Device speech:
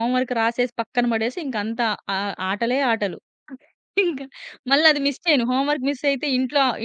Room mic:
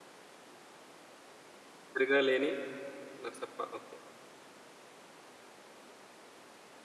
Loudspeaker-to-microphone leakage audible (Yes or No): No